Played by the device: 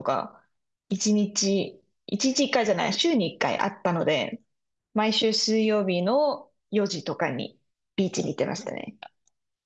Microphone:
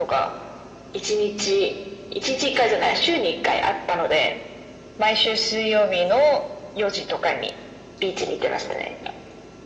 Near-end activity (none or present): none